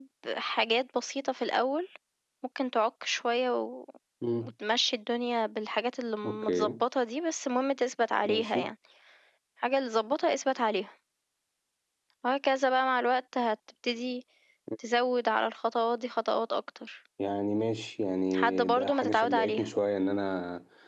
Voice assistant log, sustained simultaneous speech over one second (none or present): present